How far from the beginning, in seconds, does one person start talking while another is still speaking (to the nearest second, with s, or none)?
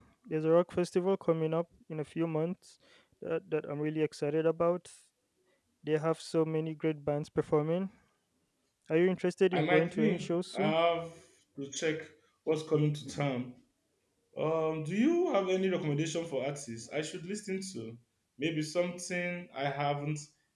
10 s